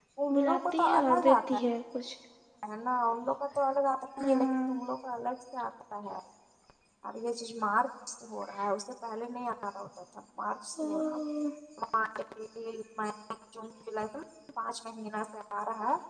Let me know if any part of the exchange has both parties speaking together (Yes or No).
Yes